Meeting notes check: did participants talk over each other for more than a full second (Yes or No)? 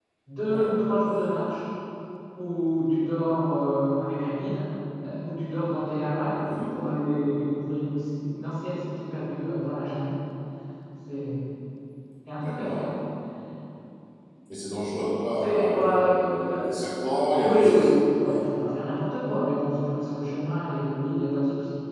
Yes